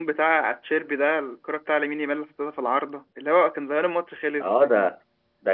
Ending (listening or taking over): taking over